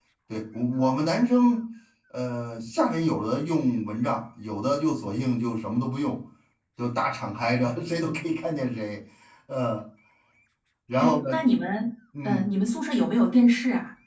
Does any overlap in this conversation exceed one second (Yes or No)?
No